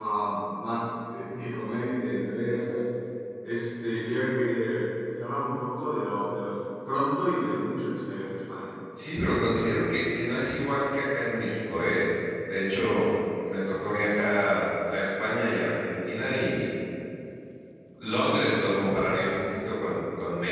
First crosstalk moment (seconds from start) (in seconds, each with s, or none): none